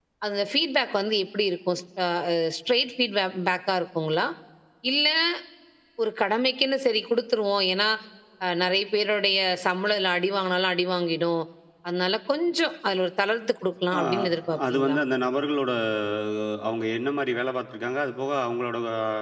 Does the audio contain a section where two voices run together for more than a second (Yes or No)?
No